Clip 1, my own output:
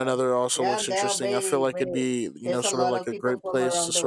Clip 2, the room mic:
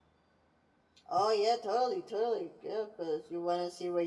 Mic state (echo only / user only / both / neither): user only